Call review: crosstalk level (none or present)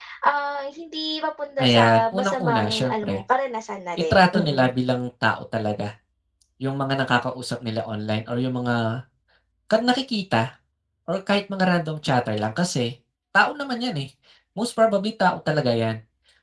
present